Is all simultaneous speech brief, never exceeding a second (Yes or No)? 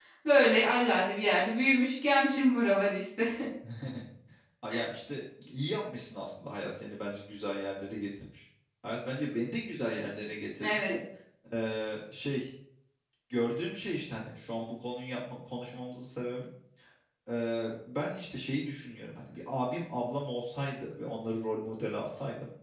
Yes